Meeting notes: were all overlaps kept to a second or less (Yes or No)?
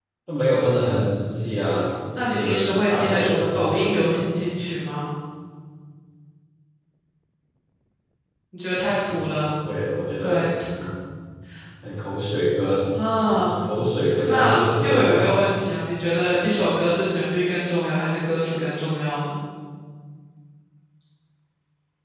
No